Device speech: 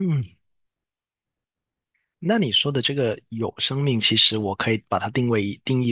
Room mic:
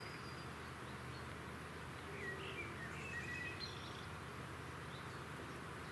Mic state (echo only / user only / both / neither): neither